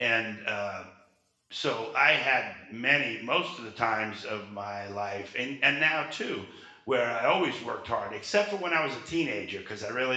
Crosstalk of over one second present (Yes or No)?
No